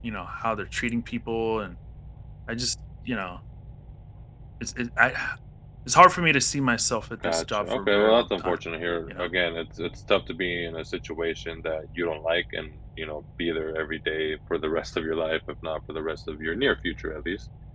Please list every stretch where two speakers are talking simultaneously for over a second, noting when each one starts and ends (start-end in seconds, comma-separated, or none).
7.2-8.6